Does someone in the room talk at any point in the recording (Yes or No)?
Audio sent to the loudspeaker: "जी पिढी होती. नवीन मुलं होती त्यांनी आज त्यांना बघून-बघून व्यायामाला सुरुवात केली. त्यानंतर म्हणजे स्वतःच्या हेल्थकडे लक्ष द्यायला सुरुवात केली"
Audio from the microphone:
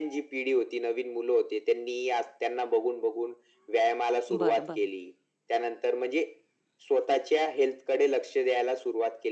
Yes